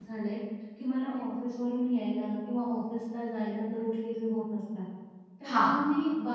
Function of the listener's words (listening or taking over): listening